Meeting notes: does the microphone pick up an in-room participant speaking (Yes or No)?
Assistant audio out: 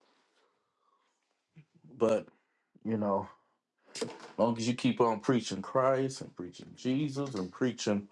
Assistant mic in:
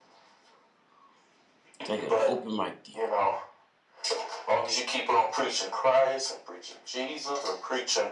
Yes